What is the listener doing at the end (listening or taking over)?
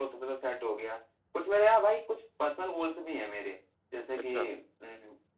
listening